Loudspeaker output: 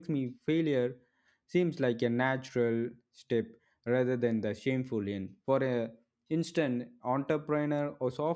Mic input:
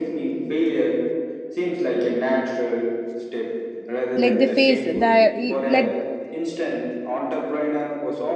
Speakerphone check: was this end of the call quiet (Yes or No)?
No